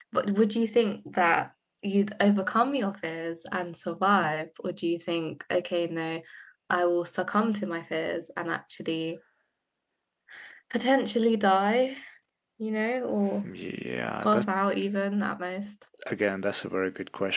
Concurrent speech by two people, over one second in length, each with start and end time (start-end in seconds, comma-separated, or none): none